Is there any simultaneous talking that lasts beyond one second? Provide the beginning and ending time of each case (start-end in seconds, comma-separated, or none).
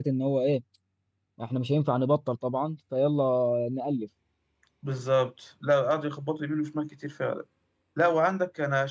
none